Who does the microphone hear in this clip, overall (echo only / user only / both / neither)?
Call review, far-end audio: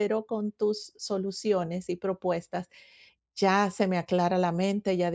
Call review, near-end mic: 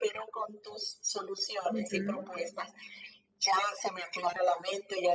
both